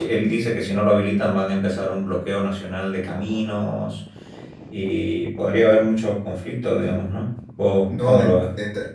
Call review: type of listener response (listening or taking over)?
taking over